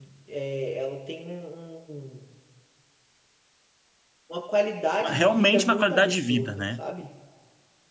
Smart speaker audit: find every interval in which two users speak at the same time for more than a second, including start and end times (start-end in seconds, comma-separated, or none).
5.0-6.8